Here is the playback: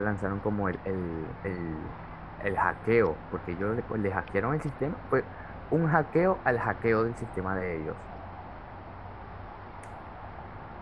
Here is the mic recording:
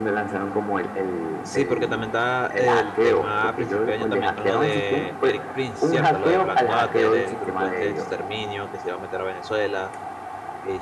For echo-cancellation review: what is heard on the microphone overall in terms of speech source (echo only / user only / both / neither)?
both